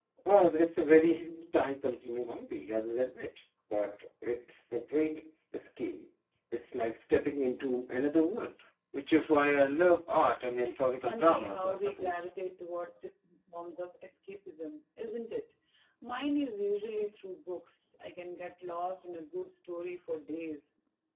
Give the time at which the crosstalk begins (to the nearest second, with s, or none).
11 s